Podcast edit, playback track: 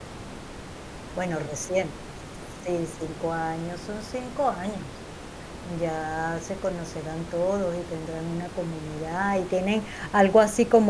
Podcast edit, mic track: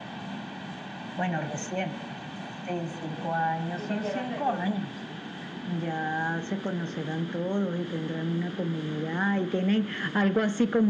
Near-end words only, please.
Y le llevas galletas.

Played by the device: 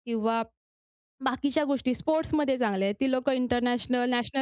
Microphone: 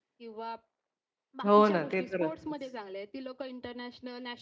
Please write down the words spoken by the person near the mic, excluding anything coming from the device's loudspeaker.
हो ना, ते तर असतंच.

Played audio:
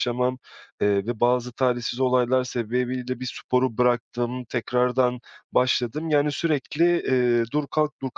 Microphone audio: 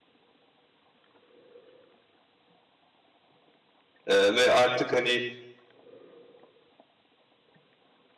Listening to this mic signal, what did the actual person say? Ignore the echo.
eee, ve artık, hani,

